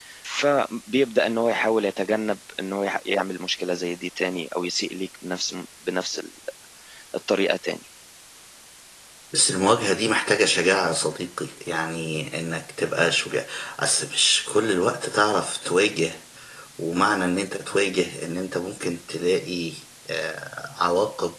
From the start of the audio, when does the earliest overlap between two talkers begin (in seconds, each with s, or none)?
none